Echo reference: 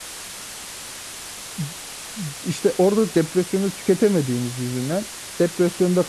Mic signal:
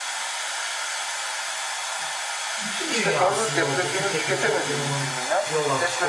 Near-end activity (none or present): present